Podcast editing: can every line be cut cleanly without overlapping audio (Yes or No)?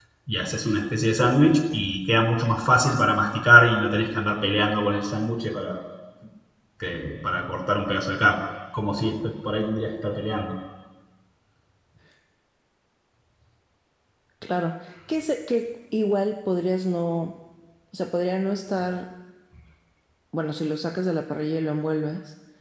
Yes